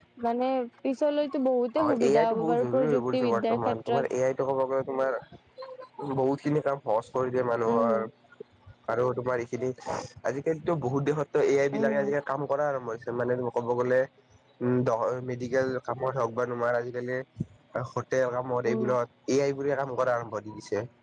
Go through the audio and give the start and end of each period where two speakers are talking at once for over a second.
1.8-4.0

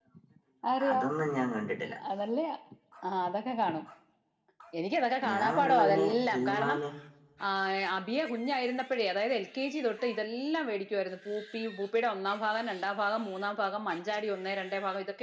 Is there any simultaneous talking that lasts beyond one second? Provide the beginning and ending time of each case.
5.3-6.8

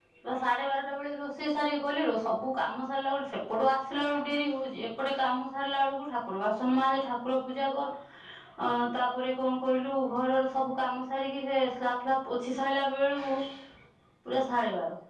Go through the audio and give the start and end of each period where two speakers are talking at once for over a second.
none

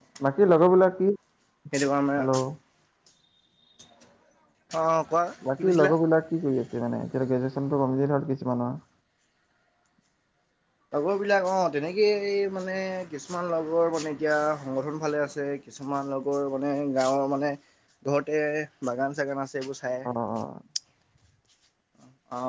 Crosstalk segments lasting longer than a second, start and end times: none

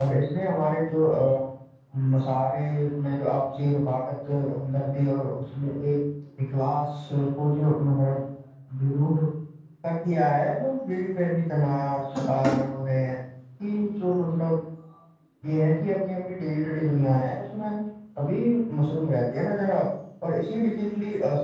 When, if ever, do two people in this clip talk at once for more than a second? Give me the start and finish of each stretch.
none

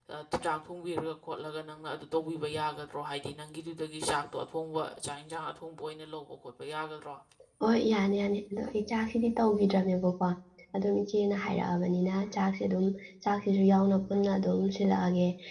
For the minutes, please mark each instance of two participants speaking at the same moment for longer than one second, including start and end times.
none

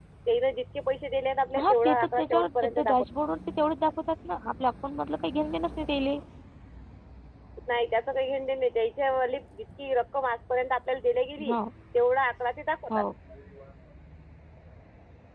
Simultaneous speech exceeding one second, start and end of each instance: 1.6-3.0

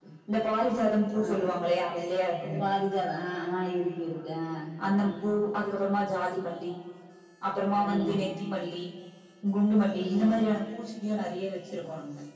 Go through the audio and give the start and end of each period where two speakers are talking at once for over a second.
none

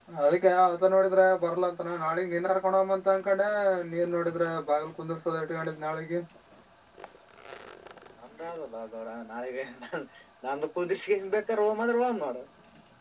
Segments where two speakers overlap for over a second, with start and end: none

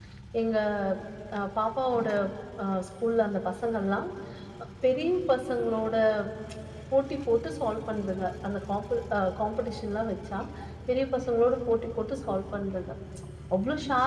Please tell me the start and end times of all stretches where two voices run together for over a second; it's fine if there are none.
none

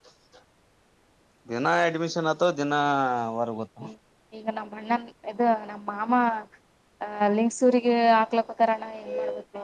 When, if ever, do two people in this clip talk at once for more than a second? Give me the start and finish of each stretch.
none

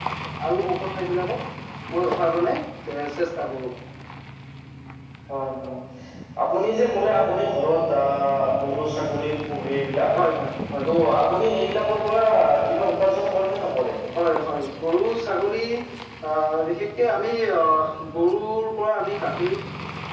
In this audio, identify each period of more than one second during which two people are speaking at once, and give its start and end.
none

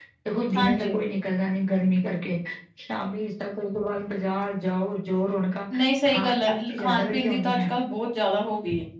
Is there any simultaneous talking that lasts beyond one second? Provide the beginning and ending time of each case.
6.0-7.7

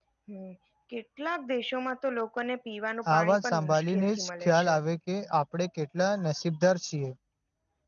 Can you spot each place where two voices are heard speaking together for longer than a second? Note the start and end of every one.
3.1-4.7

